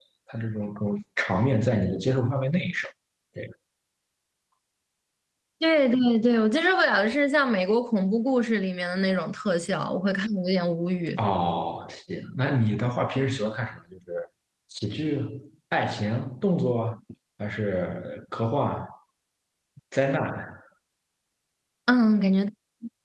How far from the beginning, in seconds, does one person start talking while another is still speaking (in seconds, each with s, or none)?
none